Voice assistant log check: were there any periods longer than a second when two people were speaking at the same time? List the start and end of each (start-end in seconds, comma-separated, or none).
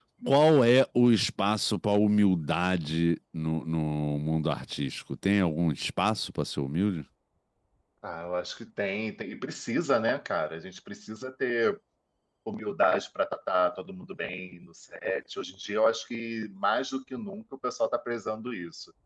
none